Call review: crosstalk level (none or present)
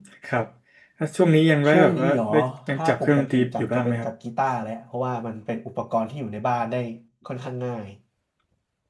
present